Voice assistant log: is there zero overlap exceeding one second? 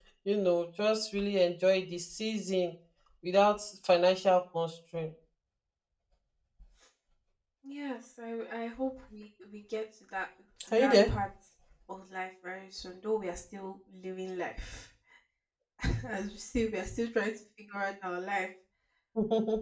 Yes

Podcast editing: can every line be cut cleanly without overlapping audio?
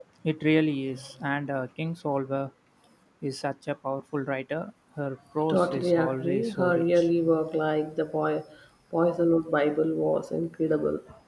No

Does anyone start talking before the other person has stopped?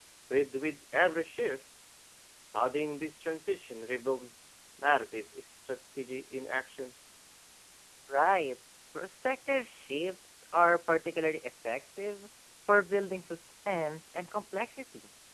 No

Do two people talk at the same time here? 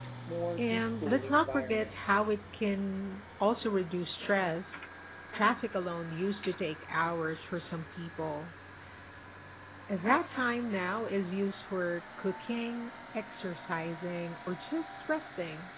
Yes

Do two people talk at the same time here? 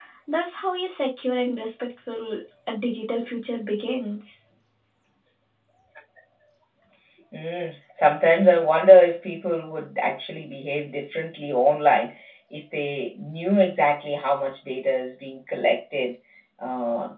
No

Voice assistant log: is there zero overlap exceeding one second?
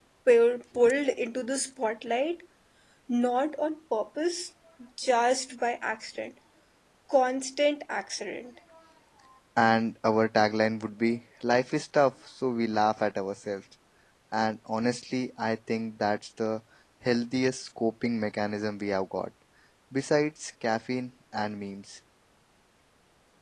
Yes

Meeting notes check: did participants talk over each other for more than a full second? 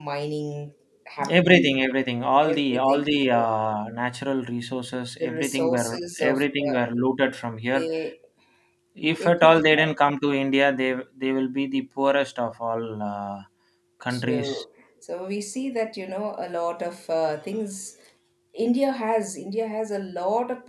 Yes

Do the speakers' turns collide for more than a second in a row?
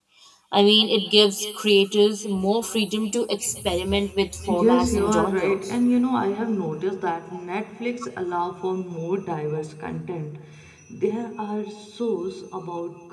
Yes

